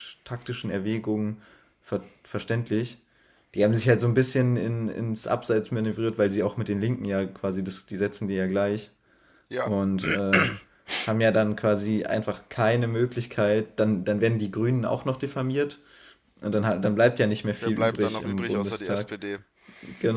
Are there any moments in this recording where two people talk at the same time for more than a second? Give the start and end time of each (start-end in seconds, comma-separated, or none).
17.6-19.1